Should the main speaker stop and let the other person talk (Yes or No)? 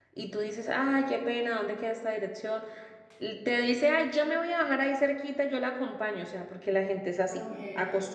No